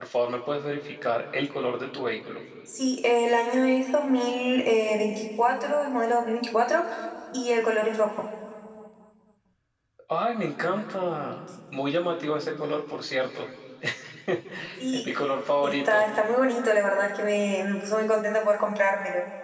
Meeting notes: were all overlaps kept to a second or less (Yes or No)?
Yes